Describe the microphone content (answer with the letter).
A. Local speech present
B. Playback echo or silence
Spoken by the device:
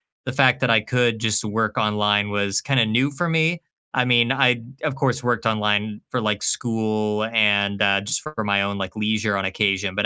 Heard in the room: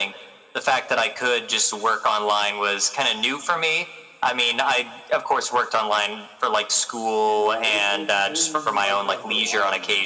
A